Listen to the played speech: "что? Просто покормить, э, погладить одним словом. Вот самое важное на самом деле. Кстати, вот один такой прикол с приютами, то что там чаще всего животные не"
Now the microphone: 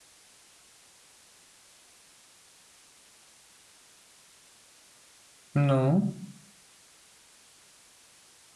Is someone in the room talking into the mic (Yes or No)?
Yes